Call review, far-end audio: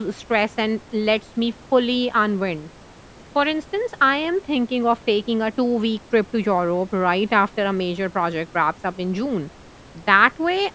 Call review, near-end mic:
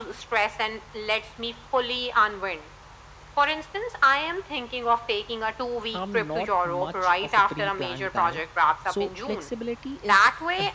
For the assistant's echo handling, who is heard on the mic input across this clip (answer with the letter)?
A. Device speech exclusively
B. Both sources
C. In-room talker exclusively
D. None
B